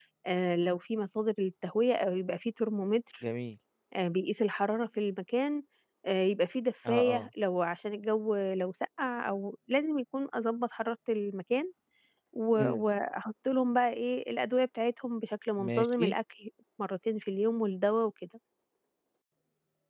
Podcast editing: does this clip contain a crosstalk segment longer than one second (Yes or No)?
No